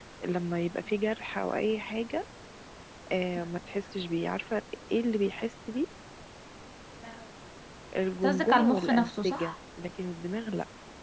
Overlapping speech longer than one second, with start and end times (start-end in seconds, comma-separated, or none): 8.2-9.5